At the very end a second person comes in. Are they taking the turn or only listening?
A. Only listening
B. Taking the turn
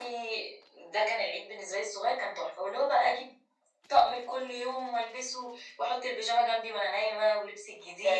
B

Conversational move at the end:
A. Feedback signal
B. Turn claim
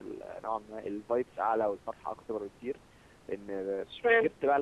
A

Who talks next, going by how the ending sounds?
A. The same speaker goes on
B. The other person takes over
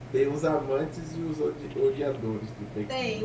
B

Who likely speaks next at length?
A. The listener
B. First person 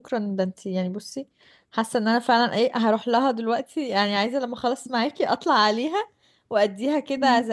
B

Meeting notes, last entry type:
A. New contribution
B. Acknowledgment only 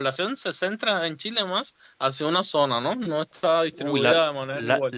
A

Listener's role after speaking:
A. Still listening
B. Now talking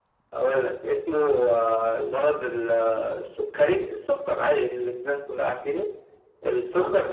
A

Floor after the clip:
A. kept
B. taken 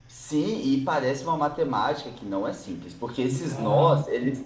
A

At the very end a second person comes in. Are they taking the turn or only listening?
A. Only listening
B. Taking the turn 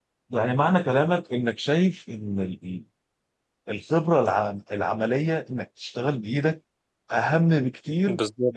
A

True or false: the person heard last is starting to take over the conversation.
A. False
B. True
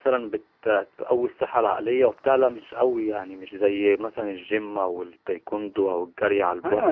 B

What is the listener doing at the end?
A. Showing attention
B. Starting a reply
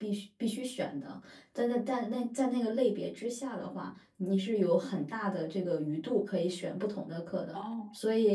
A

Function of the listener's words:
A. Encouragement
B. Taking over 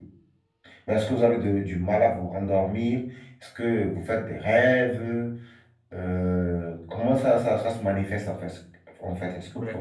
B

